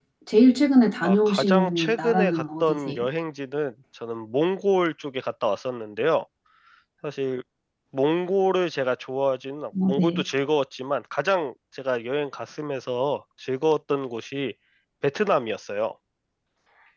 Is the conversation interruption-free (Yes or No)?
No